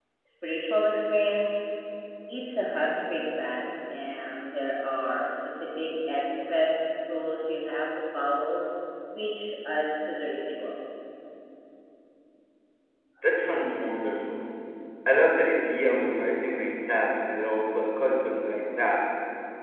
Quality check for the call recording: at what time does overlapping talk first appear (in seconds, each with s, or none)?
none